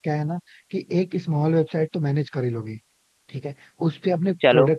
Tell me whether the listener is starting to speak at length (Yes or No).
No